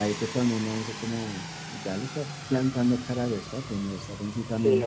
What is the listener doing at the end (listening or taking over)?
taking over